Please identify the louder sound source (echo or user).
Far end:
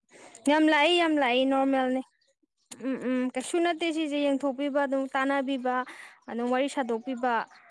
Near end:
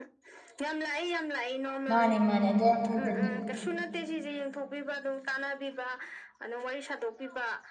user